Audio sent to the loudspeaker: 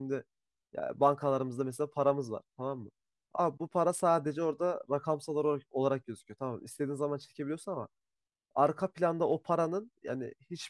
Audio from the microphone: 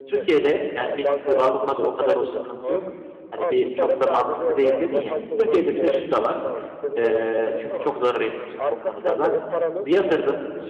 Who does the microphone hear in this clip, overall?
both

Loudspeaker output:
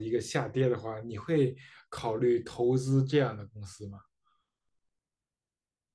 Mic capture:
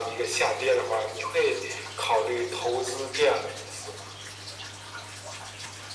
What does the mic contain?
echo only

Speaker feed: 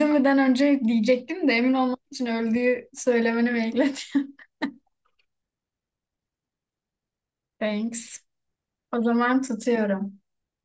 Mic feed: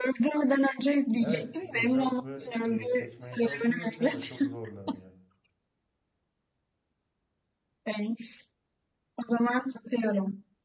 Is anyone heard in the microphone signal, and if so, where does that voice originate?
both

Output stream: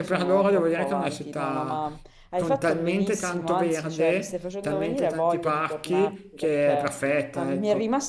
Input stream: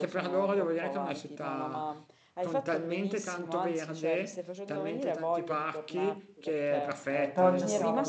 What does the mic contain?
both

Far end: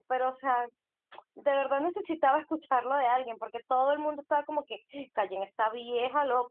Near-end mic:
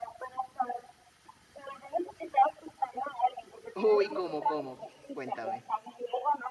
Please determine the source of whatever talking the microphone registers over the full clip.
both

